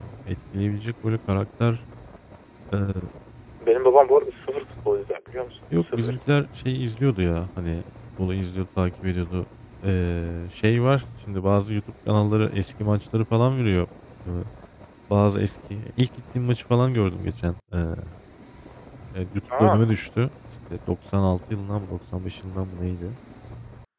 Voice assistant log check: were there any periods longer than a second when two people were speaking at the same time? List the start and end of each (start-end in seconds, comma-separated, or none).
none